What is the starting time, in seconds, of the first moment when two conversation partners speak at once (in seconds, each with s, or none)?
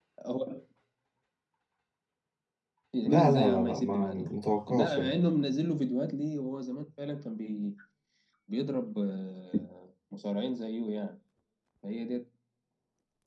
3.0 s